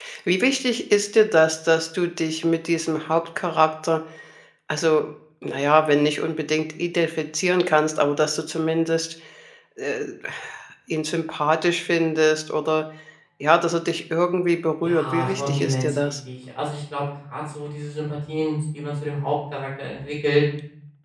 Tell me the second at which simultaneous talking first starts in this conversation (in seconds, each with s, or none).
14.8 s